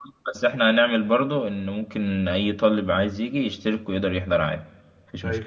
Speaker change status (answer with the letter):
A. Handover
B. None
A